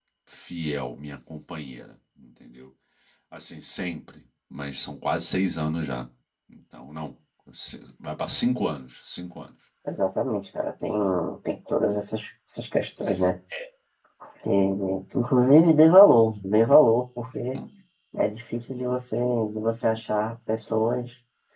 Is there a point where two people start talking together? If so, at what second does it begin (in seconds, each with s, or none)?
none